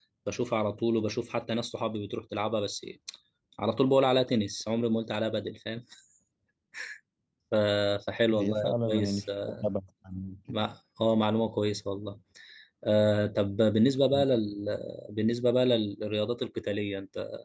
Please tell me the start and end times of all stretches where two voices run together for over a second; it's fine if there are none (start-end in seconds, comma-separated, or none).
8.3-9.6